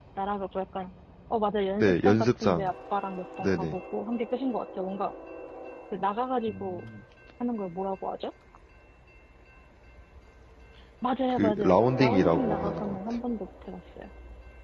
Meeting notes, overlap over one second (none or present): present